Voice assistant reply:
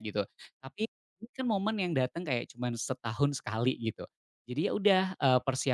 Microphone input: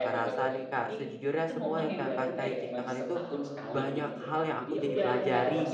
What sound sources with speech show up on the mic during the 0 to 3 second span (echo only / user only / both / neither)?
both